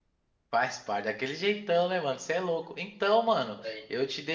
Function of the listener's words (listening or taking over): listening